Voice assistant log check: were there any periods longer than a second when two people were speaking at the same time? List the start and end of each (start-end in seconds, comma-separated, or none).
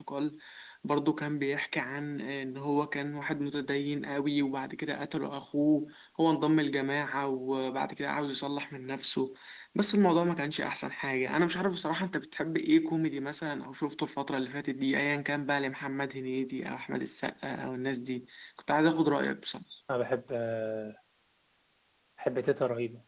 none